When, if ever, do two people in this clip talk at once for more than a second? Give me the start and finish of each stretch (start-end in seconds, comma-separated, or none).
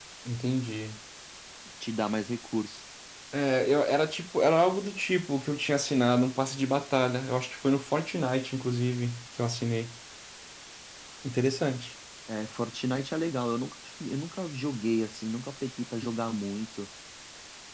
none